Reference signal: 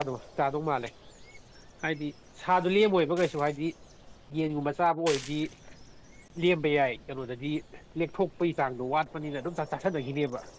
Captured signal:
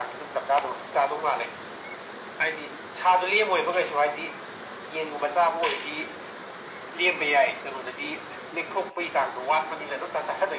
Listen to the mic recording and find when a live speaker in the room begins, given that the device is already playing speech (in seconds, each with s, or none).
none